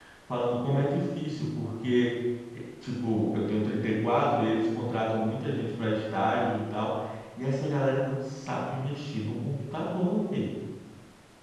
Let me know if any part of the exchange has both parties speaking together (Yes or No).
No